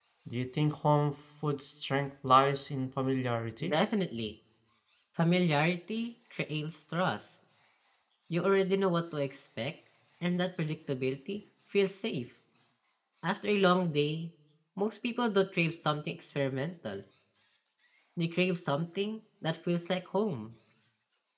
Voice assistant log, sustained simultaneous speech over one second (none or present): none